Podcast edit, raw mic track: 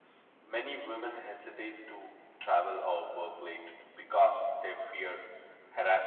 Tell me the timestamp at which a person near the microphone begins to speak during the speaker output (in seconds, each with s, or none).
none